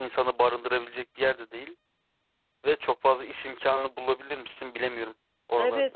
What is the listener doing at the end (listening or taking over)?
taking over